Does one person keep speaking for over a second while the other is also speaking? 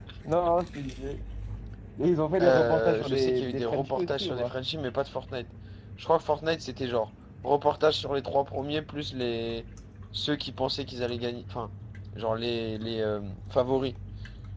Yes, from 2.4 s

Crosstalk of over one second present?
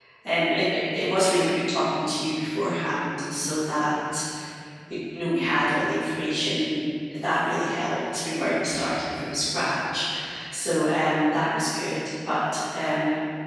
No

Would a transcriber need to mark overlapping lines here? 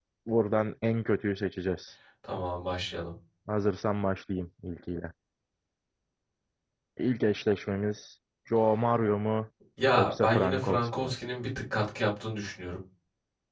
Yes, from 9.9 s

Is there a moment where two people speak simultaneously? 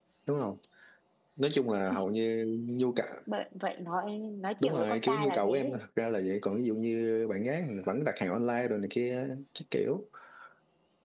Yes, from 4.6 s

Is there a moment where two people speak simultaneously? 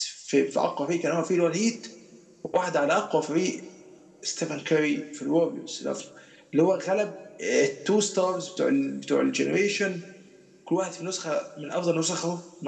No

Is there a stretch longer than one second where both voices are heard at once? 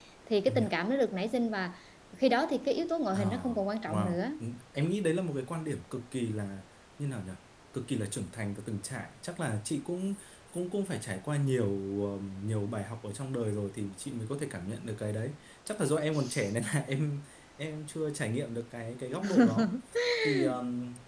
No

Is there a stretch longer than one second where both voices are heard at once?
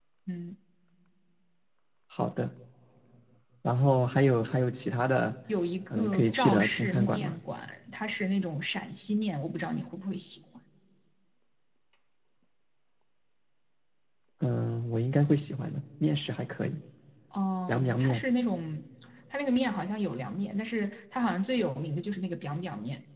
Yes, from 5.9 s

